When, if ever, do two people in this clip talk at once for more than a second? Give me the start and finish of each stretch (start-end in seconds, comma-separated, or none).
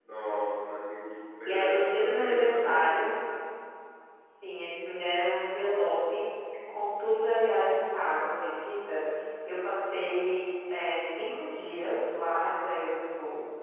1.4-3.0